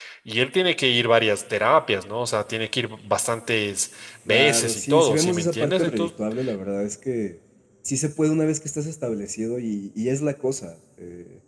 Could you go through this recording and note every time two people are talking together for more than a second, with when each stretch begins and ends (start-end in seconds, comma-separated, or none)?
4.3-6.1